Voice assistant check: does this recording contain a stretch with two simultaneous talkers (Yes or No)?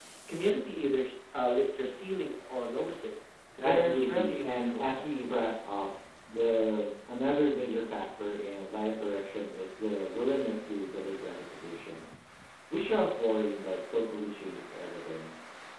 Yes